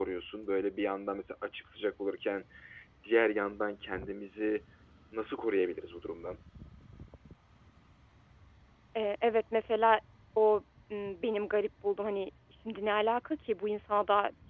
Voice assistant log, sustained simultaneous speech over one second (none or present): none